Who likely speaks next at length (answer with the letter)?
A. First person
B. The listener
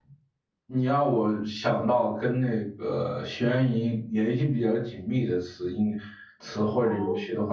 A